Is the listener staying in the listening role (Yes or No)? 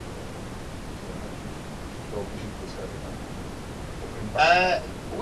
No